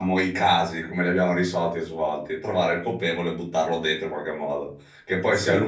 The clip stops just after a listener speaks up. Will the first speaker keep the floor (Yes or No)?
Yes